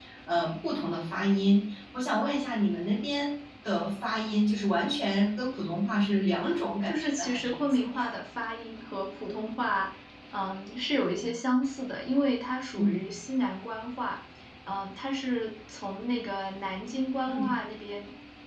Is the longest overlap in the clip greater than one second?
Yes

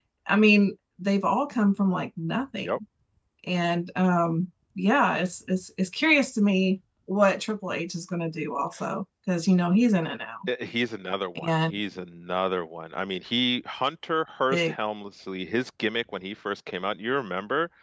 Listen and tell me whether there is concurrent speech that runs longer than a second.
No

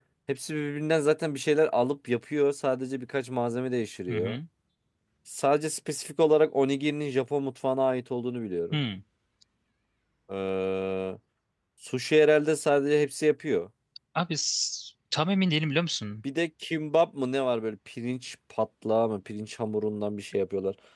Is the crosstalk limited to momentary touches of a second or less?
Yes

